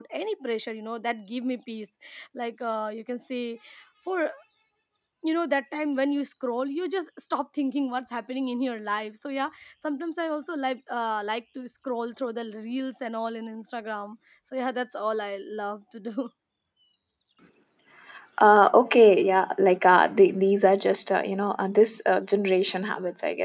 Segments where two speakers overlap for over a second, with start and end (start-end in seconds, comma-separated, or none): none